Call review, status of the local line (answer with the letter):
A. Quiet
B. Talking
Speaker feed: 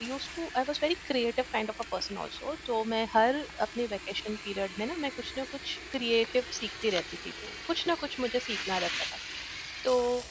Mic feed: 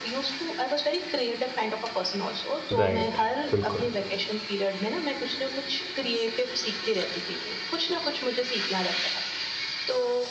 B